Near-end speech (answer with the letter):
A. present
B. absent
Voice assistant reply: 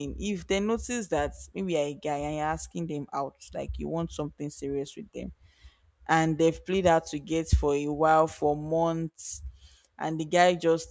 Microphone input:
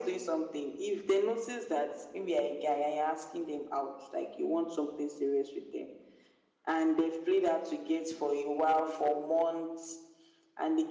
B